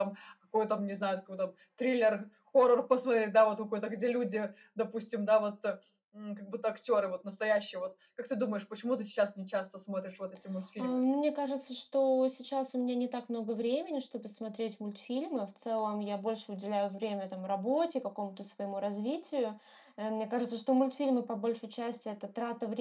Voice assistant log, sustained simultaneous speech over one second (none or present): none